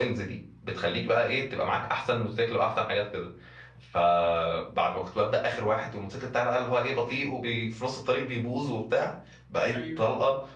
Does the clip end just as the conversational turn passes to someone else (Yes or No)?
No